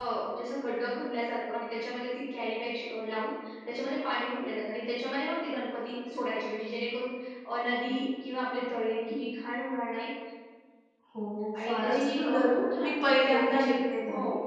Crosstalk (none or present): present